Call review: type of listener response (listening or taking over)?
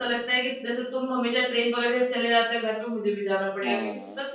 listening